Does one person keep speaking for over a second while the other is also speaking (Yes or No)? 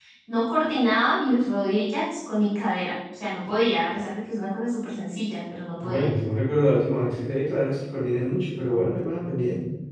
No